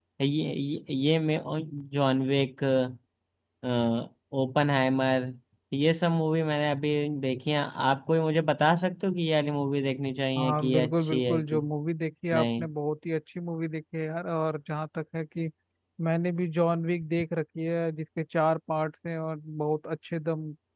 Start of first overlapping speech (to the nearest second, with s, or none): 10 s